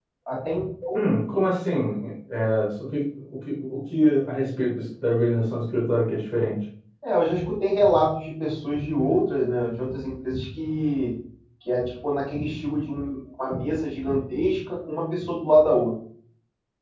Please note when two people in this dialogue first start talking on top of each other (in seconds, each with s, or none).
none